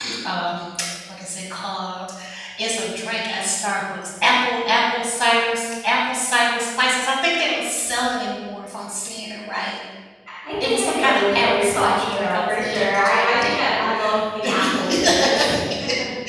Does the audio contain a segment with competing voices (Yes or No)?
Yes